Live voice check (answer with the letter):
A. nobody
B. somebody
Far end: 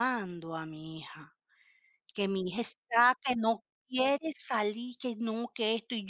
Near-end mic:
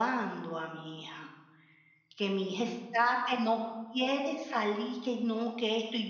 A